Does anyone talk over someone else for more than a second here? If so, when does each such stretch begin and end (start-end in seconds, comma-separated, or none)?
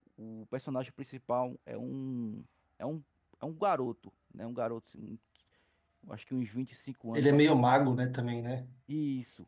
none